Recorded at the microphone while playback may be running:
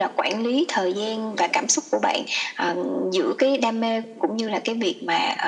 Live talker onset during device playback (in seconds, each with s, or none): none